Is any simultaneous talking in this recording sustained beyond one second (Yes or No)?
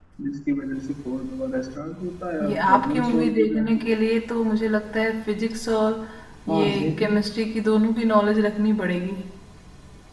Yes